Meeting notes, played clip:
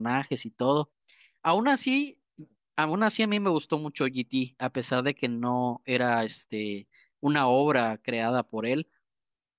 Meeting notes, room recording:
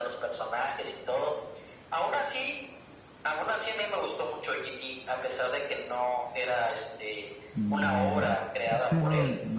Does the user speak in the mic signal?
Yes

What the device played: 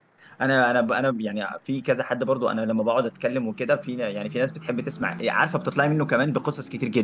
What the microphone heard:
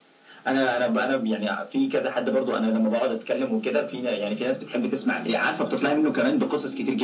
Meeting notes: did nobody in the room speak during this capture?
Yes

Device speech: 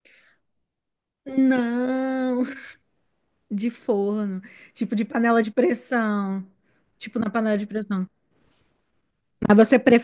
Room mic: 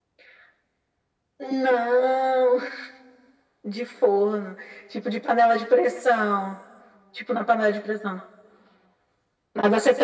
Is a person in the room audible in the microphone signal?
No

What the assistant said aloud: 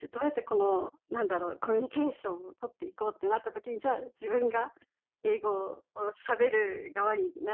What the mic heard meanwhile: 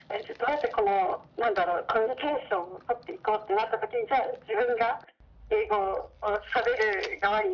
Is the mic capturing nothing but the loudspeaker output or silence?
Yes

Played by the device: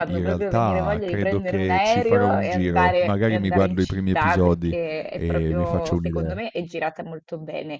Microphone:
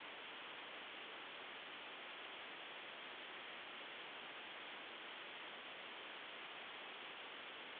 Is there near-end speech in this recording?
No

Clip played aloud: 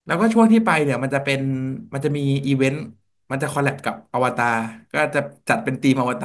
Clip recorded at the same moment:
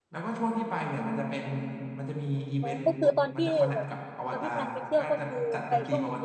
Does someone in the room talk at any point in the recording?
Yes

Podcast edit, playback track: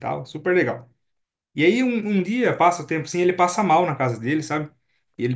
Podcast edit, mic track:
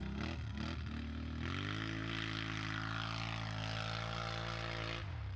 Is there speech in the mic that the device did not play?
No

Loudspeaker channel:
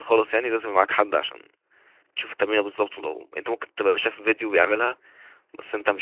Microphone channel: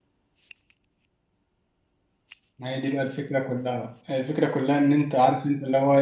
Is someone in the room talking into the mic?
Yes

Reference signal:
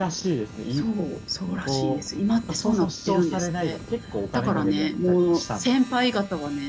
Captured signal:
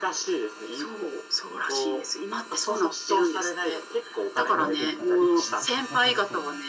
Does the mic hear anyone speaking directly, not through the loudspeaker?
Yes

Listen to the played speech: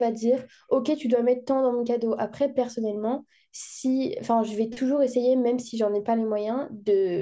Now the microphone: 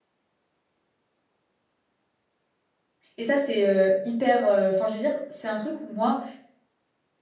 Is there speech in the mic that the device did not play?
Yes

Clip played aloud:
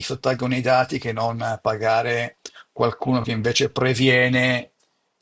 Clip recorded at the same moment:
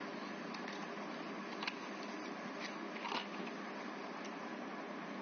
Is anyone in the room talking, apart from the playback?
No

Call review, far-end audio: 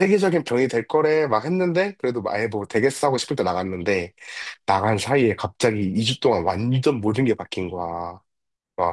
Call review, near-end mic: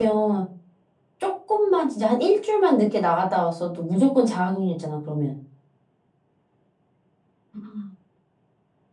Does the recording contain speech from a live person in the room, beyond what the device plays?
Yes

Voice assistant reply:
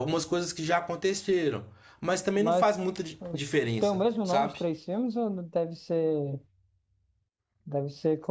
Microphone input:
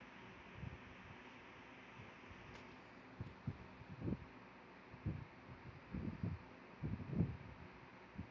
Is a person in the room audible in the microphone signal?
No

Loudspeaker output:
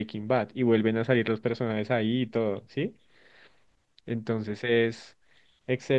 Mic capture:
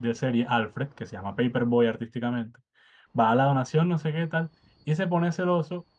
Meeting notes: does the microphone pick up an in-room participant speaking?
Yes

